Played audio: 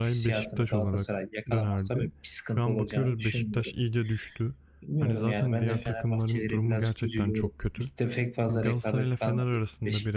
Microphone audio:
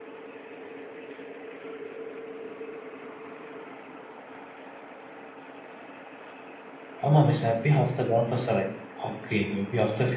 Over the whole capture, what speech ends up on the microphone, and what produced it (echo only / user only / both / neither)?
user only